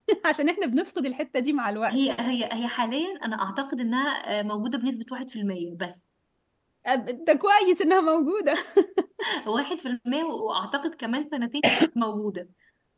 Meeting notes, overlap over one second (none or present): none